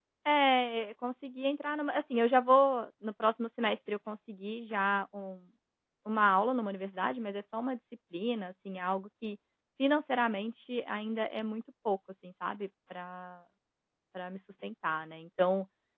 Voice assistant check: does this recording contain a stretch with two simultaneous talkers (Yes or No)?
No